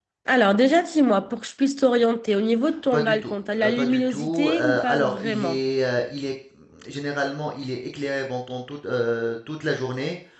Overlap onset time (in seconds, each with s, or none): 2.9 s